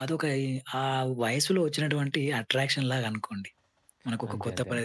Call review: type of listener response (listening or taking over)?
listening